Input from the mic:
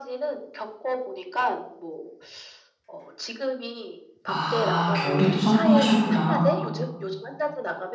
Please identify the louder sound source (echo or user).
user